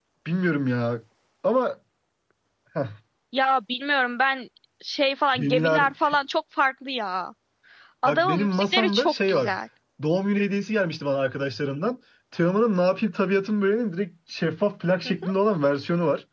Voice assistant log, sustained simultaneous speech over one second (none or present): present